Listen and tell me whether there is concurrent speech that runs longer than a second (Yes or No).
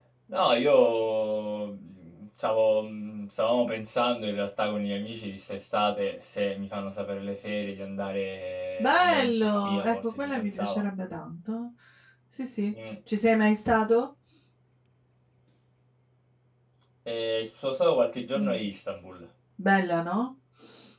Yes